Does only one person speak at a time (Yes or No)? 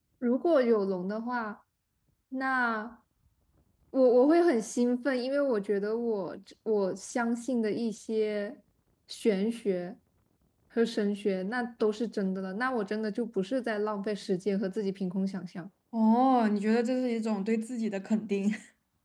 Yes